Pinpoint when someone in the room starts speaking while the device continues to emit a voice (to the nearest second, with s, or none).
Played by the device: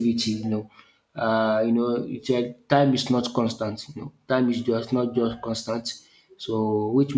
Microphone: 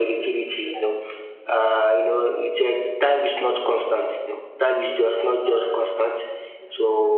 none